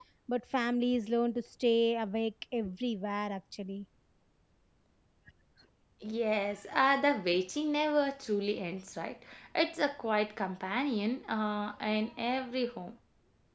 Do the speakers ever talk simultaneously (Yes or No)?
No